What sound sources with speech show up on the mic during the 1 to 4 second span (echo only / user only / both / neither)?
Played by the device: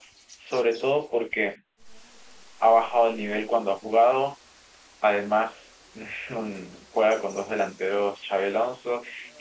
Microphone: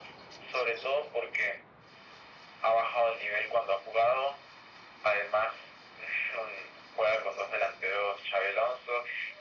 echo only